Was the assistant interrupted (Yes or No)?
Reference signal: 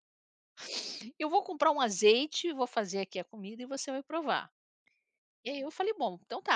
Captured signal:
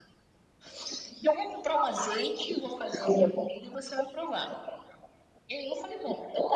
No